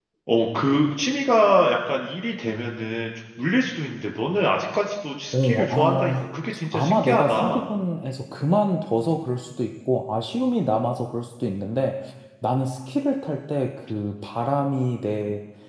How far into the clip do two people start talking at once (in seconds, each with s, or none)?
5.3 s